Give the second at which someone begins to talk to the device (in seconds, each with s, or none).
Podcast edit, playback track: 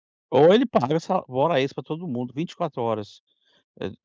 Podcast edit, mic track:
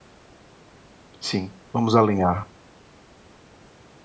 1.2 s